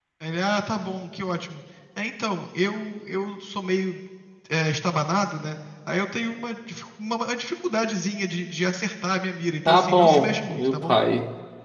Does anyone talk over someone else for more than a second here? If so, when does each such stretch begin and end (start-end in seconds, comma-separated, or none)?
9.6-11.0